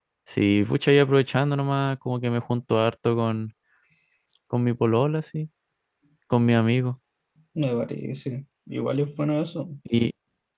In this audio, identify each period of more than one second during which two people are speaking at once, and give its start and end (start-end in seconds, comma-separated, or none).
none